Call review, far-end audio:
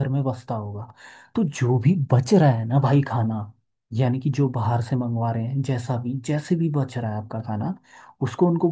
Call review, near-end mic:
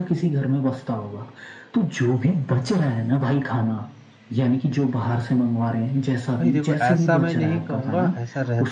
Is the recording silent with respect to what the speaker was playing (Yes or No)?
No